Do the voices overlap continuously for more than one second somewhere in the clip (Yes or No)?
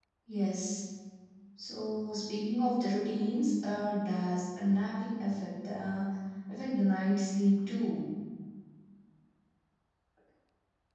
No